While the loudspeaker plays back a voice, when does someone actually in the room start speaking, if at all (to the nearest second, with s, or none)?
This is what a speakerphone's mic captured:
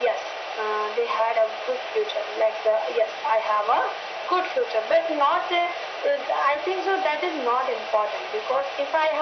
none